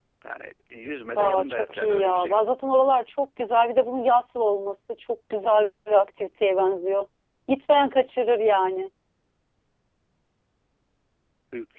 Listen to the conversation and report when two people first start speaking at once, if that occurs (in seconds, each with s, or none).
1.1 s